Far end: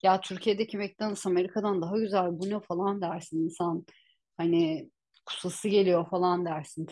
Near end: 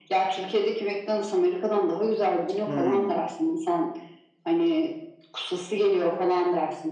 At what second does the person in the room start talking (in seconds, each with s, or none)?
2.6 s